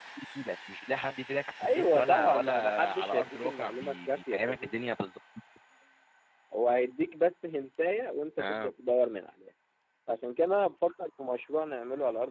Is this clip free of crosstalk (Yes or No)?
No